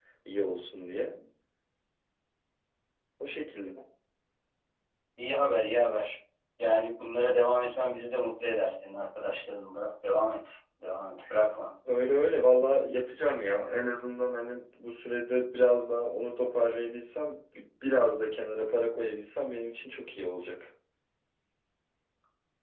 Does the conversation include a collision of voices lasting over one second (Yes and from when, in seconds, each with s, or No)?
No